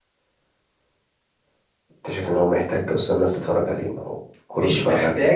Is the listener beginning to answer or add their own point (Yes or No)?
Yes